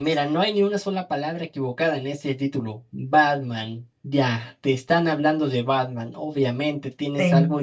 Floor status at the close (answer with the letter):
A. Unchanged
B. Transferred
A